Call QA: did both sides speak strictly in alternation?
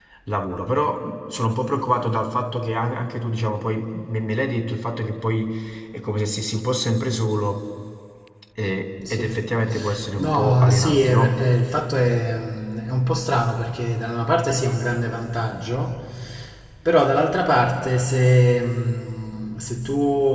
No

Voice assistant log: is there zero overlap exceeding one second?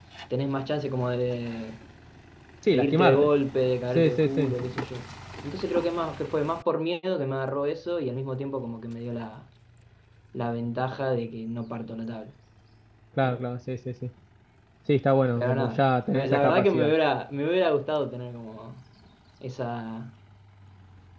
No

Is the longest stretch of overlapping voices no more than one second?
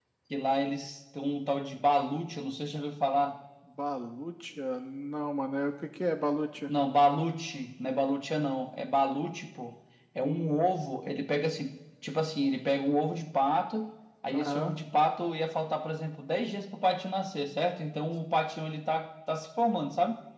Yes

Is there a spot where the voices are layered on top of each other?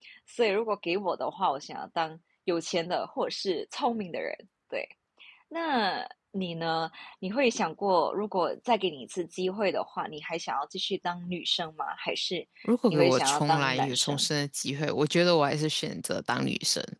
Yes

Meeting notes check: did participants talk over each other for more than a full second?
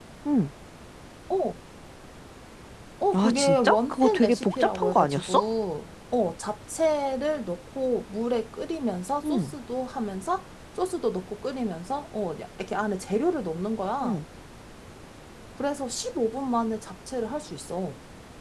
Yes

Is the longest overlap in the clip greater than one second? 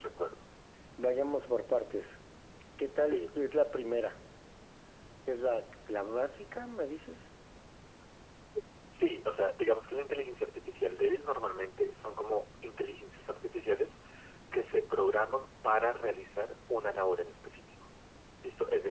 No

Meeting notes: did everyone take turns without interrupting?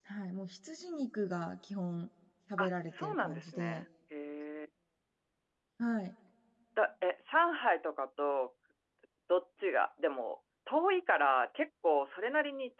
No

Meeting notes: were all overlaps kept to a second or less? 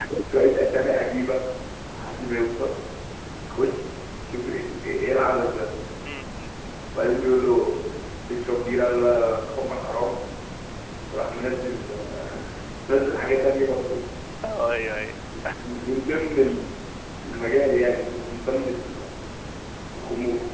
Yes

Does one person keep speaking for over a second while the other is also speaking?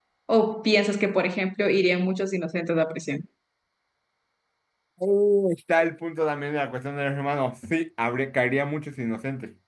No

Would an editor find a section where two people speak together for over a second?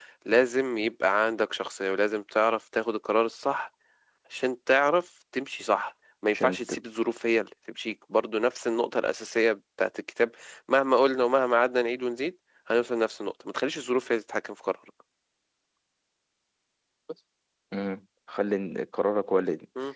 No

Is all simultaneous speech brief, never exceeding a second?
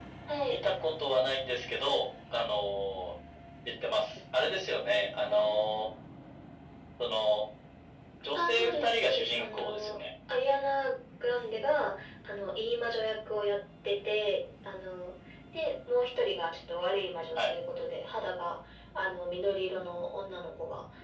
No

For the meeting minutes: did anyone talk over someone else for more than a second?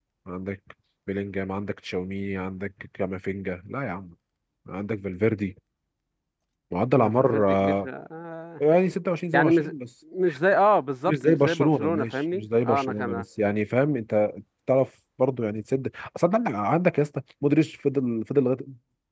Yes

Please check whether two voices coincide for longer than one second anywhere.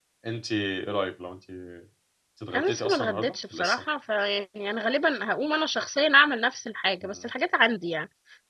Yes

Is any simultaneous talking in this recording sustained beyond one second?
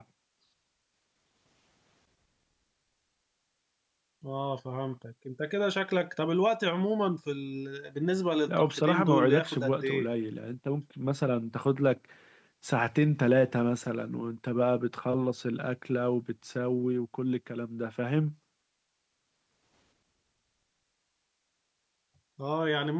Yes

